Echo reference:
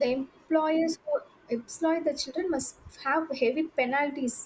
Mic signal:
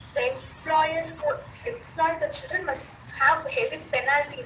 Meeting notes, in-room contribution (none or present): none